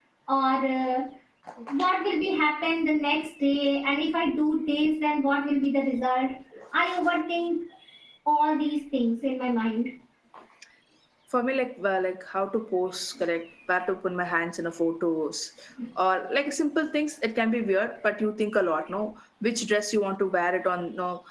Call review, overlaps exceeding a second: none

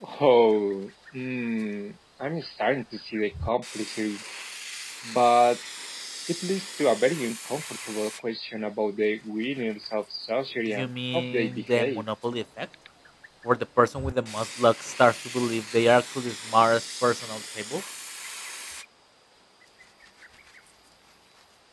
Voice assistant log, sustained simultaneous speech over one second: present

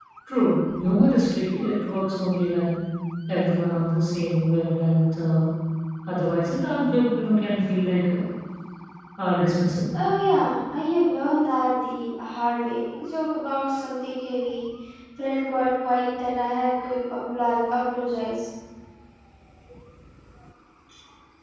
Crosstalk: none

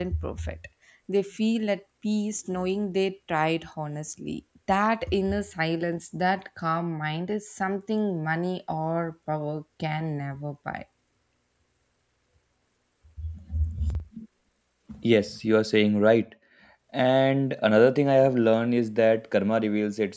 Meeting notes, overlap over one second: none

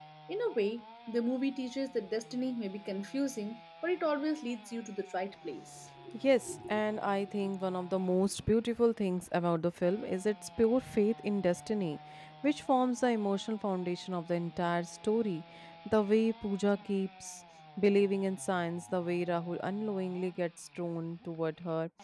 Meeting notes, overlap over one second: none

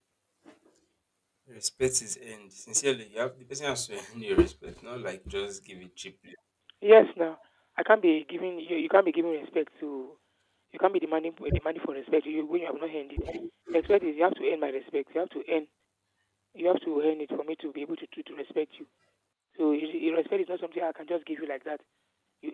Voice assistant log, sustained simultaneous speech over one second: none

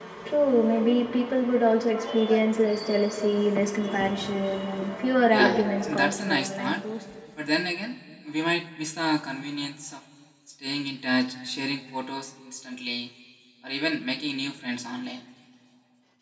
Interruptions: present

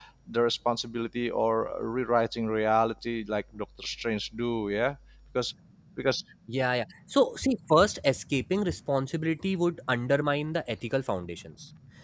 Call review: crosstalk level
none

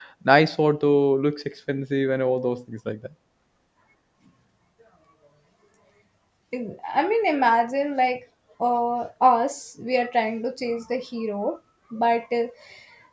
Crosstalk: none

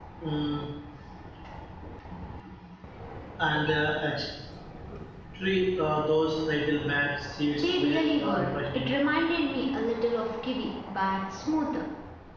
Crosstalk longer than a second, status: present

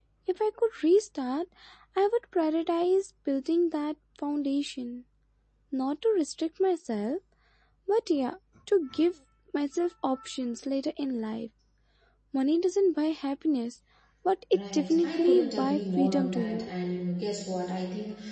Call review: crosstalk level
present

